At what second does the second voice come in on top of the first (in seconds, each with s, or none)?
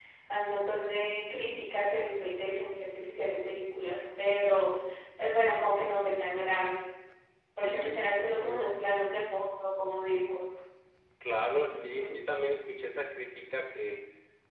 7.6 s